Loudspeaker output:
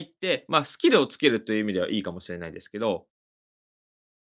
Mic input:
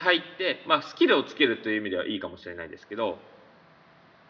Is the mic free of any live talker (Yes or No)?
Yes